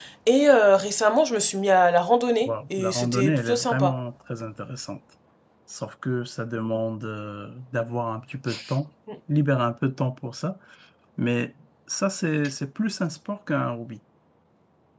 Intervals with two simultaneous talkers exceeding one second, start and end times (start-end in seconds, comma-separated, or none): 2.4-4.0